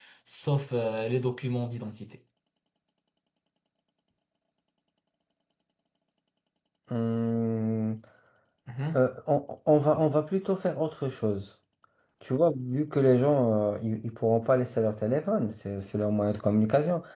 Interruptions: none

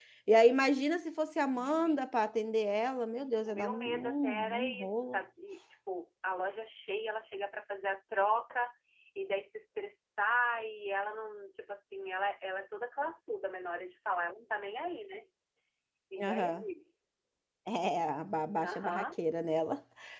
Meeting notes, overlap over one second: present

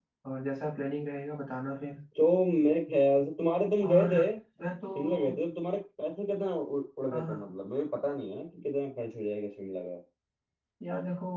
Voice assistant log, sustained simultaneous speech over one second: none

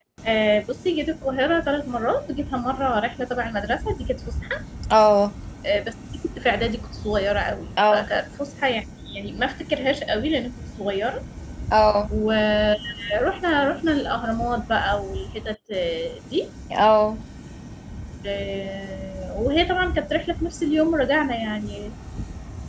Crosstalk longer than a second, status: none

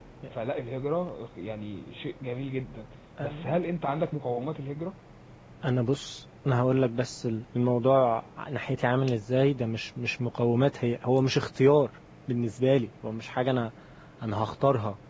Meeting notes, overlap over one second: none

